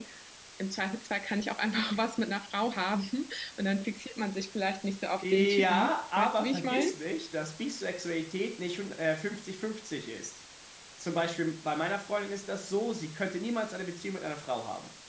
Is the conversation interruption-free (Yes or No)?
No